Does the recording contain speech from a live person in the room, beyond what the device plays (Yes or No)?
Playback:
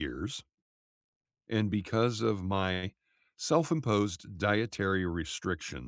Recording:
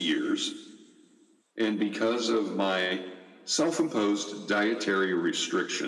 No